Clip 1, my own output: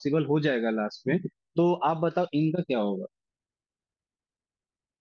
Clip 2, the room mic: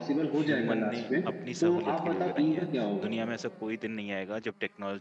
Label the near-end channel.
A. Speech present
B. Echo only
A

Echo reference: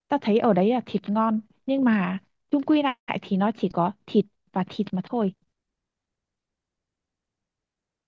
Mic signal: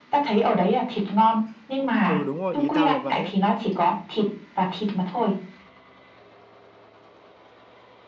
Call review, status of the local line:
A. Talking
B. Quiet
A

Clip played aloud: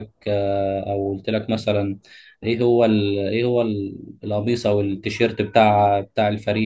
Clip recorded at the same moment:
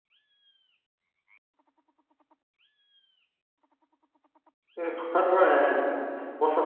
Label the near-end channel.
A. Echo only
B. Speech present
B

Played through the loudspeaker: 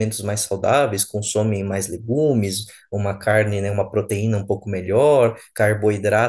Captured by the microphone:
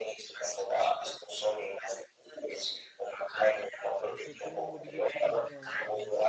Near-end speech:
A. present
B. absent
A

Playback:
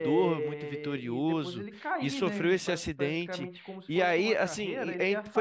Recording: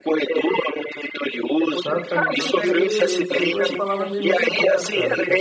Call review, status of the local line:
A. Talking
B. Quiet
A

